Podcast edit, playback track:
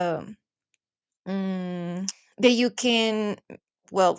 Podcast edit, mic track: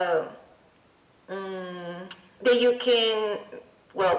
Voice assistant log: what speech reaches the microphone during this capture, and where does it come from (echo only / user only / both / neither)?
echo only